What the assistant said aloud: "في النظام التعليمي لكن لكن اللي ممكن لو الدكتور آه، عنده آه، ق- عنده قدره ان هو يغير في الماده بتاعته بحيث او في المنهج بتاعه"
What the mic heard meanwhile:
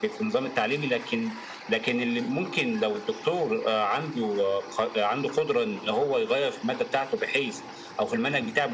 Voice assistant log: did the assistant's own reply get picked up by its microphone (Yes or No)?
Yes